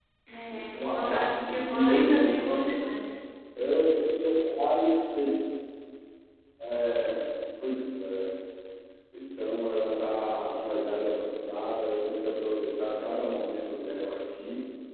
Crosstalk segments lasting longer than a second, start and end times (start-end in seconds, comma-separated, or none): 0.8-2.8